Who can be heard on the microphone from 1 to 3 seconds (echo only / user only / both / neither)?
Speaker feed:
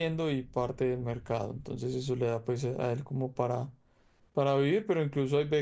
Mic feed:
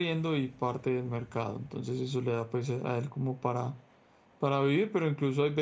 echo only